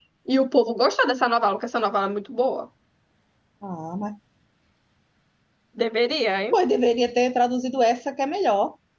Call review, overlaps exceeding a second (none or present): none